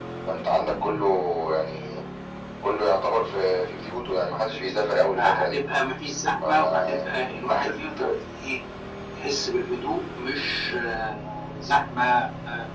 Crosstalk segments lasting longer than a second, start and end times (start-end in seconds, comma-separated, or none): 6.4-7.8